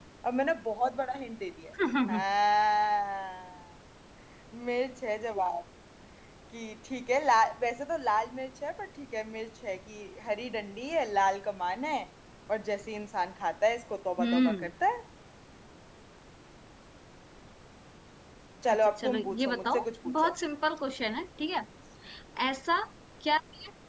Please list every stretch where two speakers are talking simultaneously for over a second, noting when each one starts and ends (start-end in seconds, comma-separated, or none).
18.7-20.3